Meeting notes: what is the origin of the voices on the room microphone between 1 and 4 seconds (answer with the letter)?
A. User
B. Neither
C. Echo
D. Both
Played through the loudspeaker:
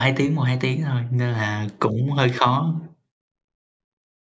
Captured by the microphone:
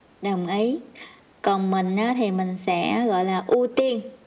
A